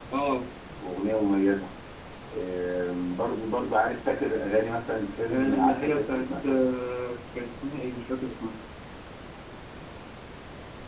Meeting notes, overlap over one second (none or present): present